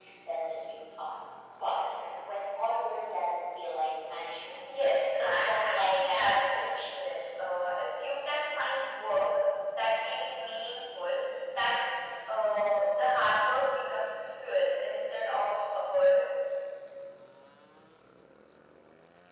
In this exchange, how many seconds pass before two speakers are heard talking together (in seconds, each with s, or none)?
5.2 s